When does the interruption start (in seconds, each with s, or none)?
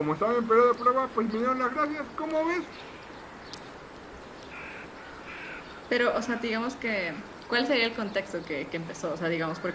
none